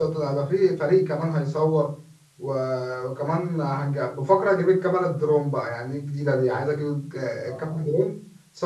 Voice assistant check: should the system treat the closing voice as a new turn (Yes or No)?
No